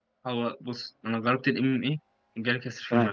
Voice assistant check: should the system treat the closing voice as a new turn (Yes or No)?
Yes